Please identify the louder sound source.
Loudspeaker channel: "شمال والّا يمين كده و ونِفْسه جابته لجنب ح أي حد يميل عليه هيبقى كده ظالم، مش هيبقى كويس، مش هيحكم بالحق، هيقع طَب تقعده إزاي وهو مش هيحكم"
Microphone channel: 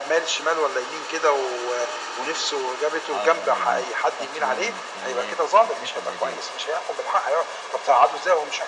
echo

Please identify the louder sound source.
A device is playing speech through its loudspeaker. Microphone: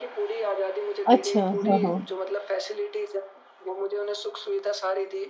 user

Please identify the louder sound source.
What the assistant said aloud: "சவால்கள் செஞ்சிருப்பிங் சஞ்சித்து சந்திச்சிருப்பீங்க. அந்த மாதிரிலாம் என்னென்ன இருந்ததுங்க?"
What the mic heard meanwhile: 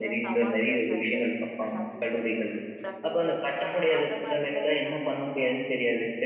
user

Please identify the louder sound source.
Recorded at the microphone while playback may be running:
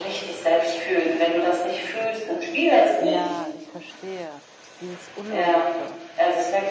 echo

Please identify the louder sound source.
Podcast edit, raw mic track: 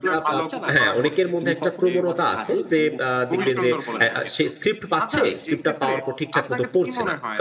user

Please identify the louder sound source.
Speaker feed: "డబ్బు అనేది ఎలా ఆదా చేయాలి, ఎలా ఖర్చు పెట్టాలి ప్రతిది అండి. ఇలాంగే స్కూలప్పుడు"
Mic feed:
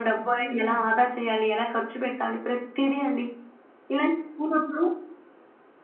echo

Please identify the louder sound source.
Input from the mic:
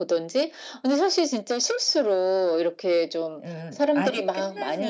echo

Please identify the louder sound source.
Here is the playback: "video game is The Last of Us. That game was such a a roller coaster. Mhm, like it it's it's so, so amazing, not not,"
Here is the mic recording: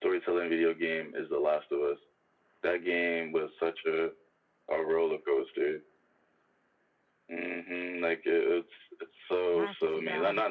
echo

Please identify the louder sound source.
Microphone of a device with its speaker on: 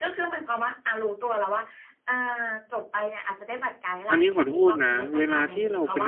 user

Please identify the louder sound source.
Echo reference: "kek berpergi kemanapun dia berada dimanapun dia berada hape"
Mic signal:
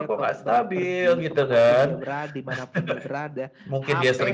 user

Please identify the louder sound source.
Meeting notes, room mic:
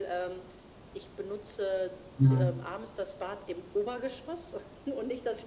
user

